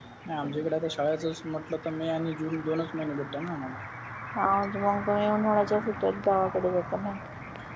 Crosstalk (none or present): none